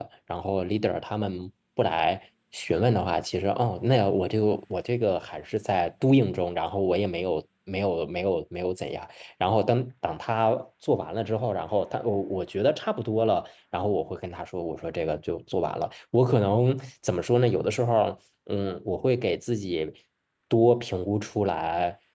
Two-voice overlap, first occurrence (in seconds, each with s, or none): none